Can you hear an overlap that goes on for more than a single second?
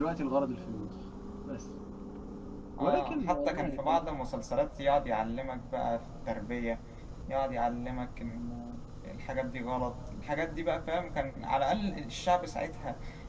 Yes, from 2.8 s

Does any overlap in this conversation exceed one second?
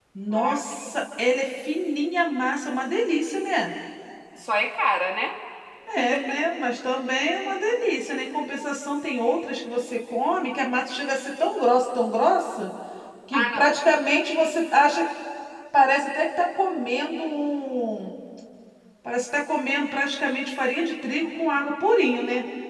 No

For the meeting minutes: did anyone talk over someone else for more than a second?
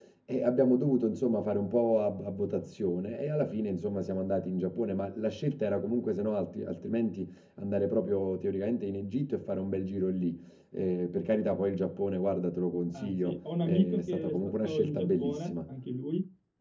Yes, from 12.9 s

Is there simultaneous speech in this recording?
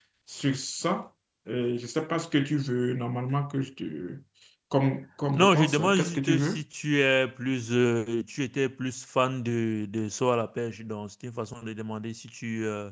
Yes, from 5.3 s

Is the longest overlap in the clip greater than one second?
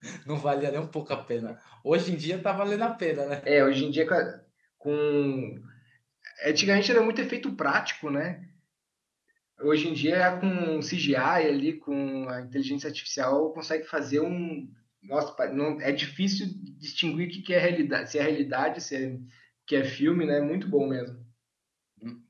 No

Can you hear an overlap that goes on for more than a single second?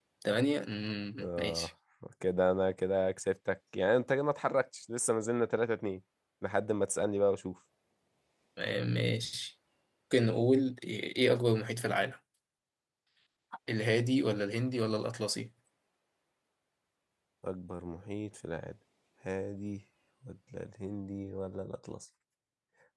No

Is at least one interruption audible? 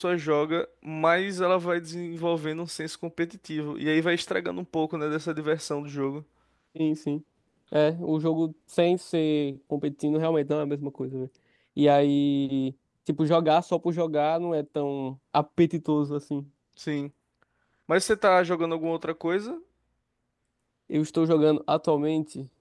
No

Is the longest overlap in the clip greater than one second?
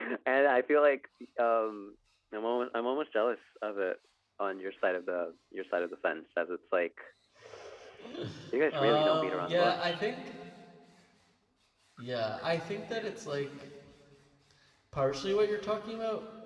Yes, from 8.7 s

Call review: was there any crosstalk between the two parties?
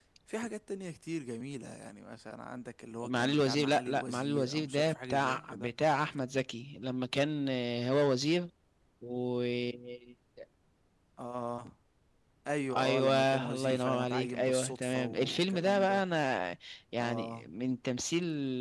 Yes, from 3.0 s

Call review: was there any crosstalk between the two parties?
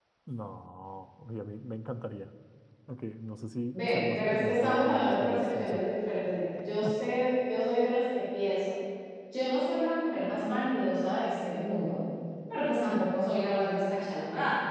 Yes, from 3.7 s

